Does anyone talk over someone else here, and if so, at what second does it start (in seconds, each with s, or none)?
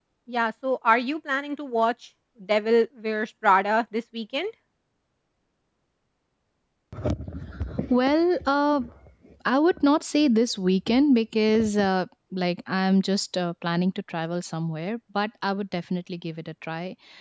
none